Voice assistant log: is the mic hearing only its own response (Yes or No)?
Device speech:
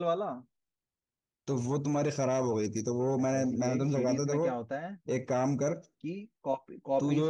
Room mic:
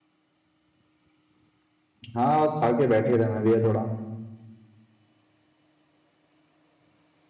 No